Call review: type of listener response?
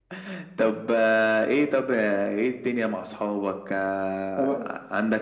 listening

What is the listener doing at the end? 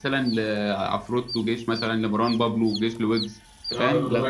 taking over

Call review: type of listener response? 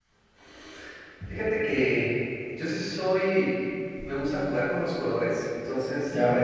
listening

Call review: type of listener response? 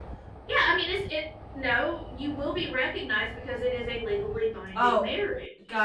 taking over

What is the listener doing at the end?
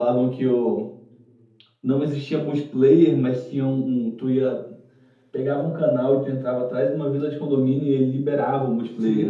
taking over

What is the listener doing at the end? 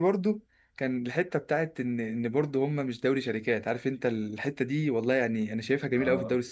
listening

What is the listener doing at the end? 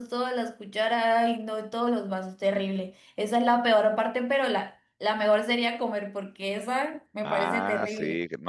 taking over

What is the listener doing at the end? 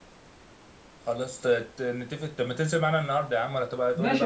taking over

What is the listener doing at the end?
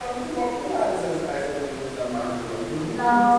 taking over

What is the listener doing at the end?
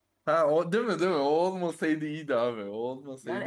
taking over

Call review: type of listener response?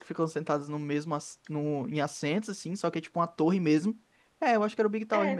taking over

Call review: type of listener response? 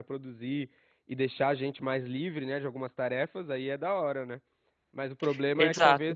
listening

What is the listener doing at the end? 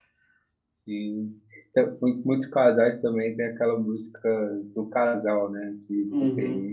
taking over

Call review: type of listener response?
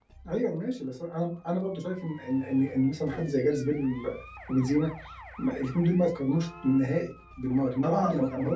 taking over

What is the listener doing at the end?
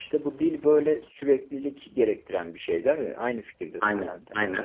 taking over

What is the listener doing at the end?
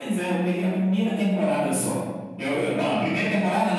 listening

